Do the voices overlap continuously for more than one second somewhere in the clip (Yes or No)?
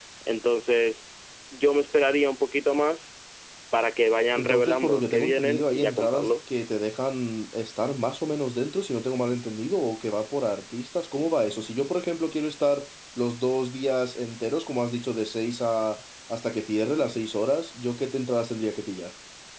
Yes